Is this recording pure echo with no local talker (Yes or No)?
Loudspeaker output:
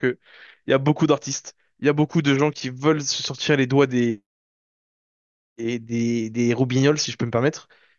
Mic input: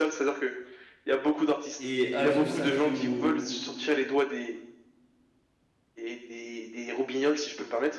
No